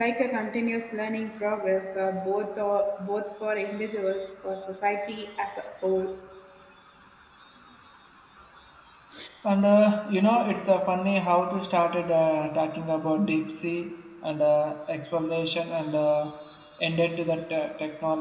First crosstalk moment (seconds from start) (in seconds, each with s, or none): none